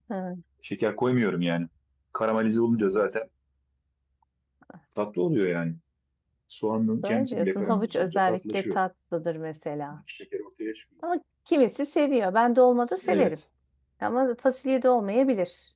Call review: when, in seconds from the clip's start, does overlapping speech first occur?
7 s

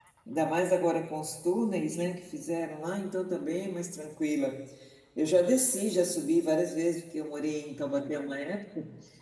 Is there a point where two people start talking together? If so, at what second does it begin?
none

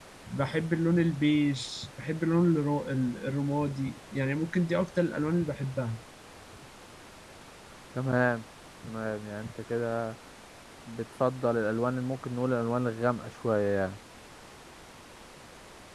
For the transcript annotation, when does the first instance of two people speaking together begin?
none

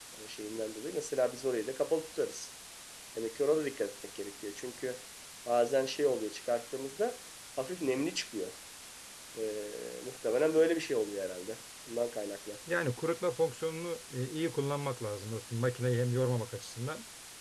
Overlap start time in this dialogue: none

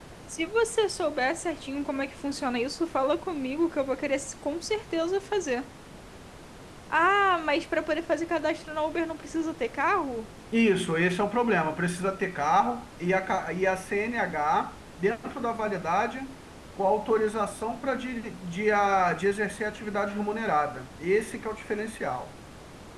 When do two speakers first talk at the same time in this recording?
none

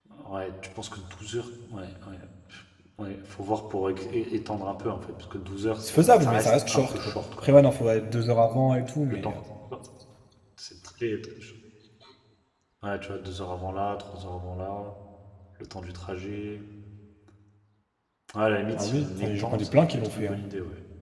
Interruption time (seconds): 6 s

